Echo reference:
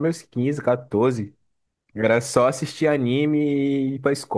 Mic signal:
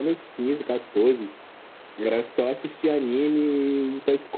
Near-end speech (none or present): none